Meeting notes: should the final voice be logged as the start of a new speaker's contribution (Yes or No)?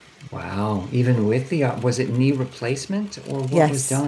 Yes